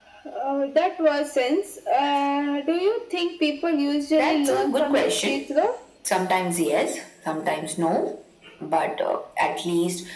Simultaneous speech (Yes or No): Yes